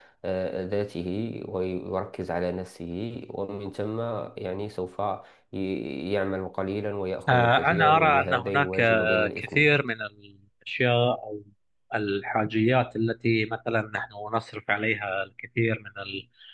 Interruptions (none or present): present